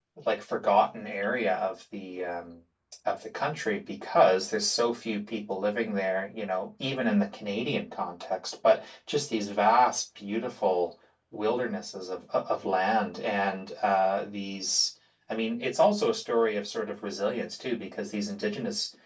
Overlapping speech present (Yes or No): No